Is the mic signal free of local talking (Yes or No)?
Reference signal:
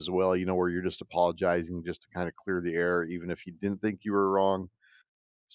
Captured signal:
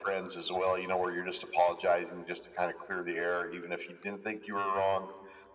Yes